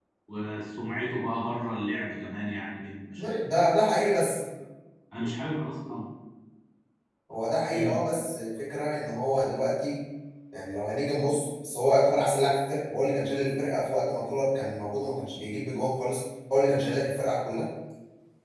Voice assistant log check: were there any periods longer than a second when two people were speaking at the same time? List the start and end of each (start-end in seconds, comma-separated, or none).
none